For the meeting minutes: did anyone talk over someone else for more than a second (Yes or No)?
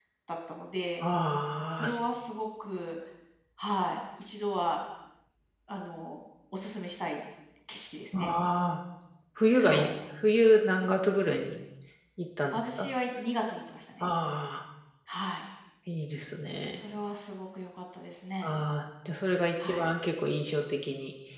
No